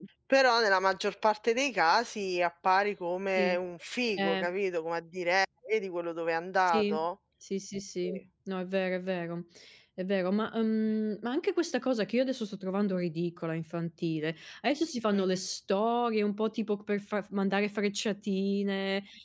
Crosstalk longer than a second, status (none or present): none